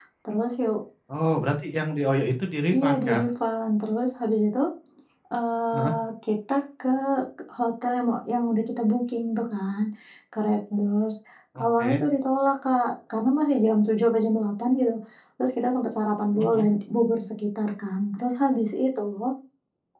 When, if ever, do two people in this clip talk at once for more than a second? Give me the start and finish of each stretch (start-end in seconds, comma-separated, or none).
none